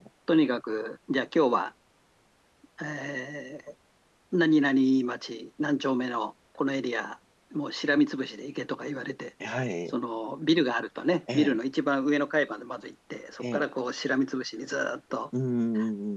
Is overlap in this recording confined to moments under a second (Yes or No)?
Yes